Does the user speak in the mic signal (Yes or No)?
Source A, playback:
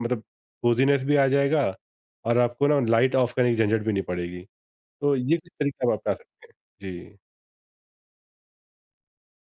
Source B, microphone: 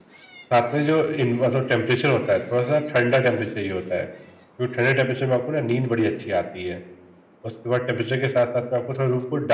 Yes